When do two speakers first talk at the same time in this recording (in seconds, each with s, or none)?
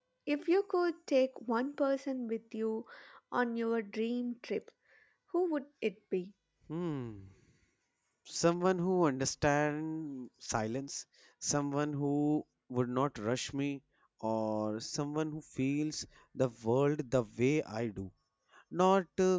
none